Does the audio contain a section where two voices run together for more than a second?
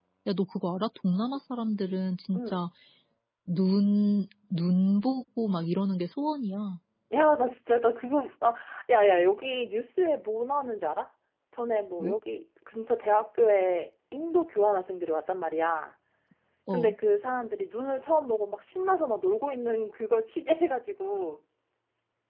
No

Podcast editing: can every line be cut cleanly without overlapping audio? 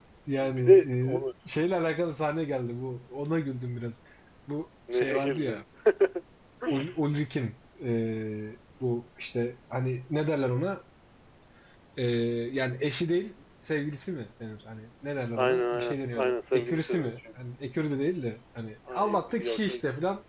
No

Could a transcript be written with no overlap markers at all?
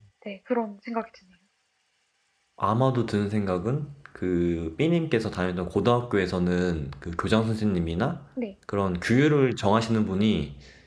Yes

